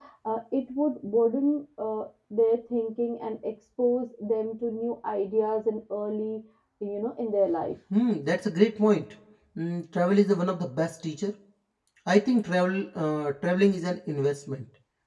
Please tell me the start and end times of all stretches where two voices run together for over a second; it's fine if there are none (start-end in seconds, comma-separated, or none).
none